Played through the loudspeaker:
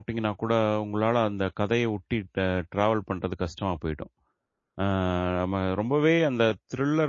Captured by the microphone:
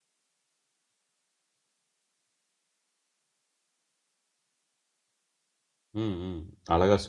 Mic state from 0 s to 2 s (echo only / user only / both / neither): neither